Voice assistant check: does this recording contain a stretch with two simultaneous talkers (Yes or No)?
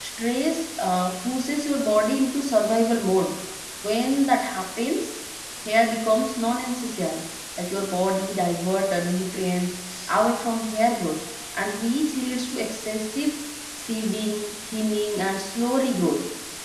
No